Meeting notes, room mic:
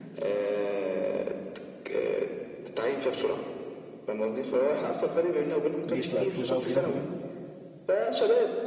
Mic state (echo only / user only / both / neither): both